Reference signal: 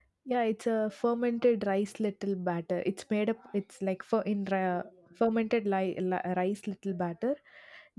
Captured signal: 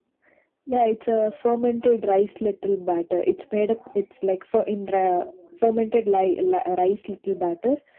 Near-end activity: none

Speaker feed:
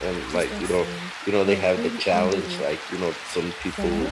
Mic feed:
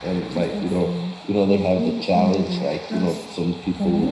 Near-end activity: present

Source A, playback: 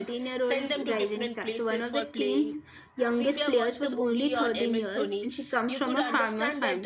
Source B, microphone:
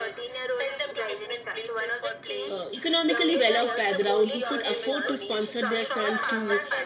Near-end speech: present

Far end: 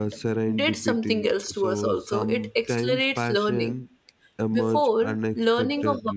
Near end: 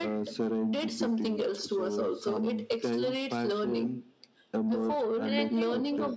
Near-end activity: present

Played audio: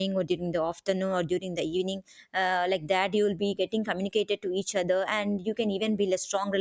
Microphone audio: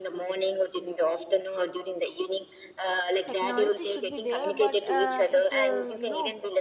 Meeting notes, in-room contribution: present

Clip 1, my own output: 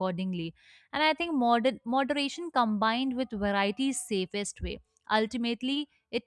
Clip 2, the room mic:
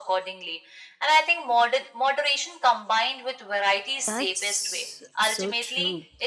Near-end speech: present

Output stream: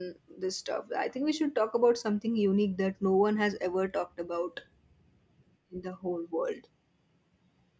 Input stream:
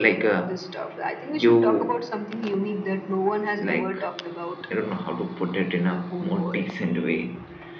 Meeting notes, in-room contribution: present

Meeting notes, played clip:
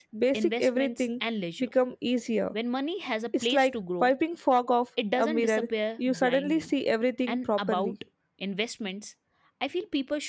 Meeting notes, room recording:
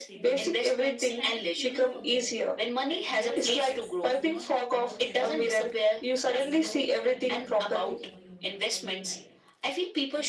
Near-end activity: present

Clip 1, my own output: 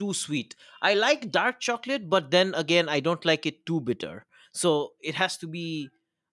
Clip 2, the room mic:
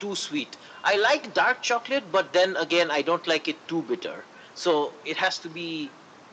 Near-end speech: none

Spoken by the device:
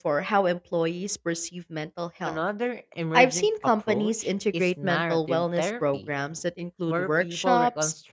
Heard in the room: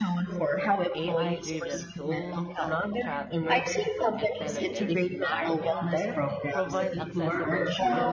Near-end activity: present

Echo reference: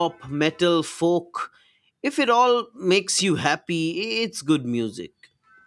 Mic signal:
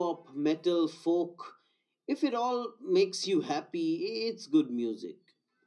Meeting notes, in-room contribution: none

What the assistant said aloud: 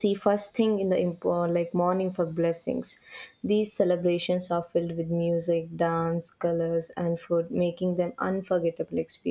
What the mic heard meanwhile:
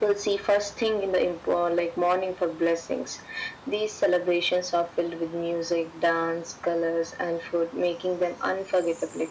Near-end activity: none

